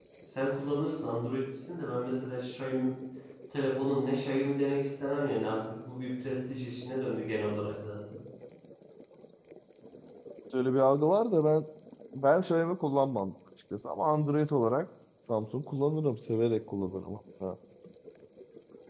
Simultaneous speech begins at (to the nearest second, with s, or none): none